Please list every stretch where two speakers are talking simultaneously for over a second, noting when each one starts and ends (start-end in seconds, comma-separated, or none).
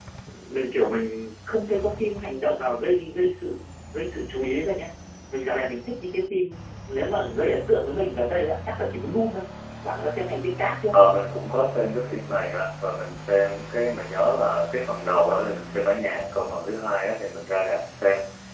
none